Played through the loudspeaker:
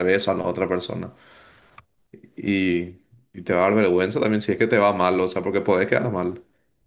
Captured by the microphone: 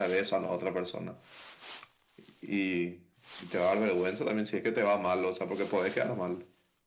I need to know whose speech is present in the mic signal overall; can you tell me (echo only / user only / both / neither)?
echo only